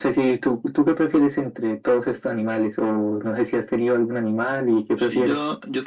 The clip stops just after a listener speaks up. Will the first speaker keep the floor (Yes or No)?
No